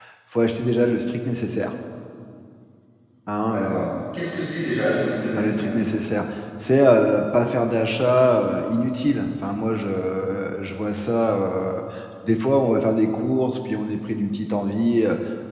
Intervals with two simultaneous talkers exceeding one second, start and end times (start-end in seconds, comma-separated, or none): none